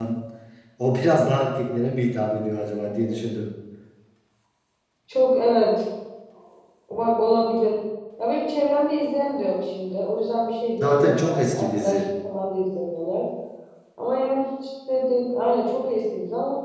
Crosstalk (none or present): present